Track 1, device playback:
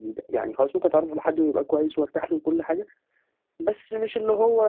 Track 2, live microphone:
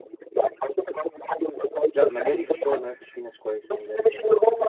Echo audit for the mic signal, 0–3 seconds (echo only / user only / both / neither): both